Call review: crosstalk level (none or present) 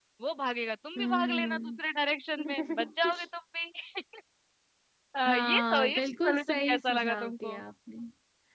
present